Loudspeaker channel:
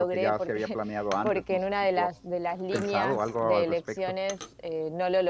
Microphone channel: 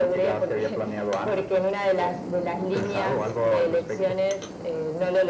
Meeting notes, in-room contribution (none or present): none